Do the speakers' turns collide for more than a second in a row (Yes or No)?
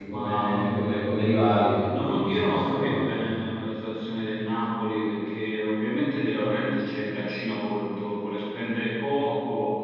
Yes